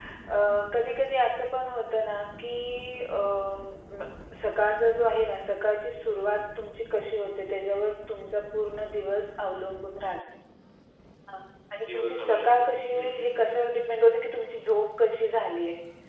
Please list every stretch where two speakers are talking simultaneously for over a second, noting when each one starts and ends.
11.9-13.5

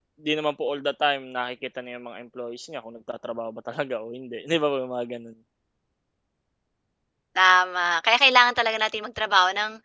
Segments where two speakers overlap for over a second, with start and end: none

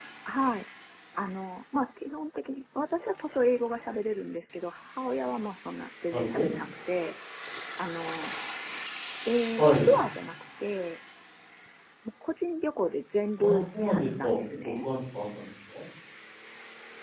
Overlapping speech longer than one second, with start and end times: 13.4-14.9

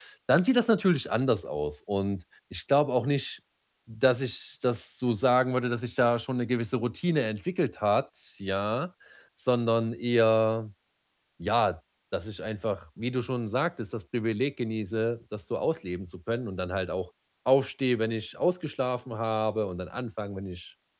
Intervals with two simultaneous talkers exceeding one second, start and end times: none

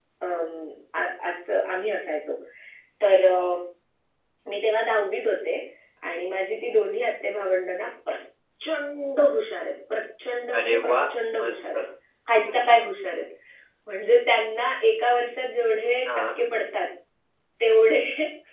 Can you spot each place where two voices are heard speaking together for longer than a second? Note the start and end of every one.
none

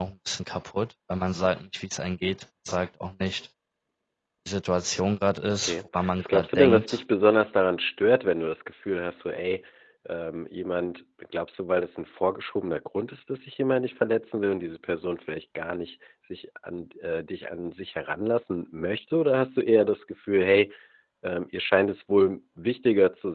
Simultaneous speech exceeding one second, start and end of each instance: 5.6-7.0

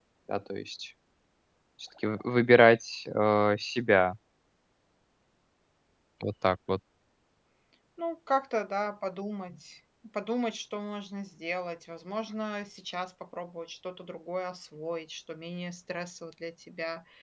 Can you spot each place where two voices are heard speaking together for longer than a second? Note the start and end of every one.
none

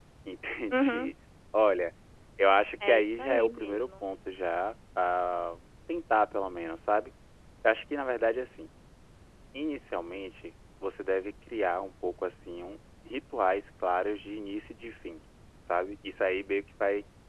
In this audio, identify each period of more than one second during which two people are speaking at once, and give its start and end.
2.8-4.0

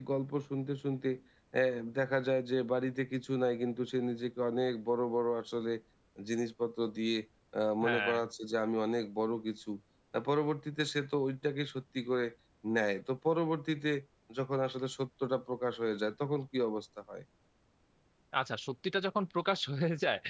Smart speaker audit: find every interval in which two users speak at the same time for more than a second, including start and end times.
none

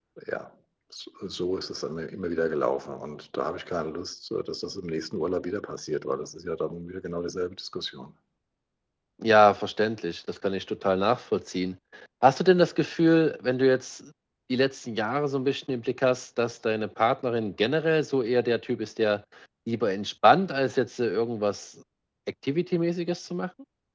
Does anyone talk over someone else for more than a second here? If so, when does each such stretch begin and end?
none

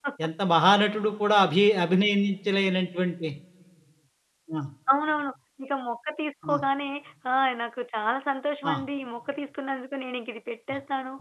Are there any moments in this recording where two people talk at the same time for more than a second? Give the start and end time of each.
none

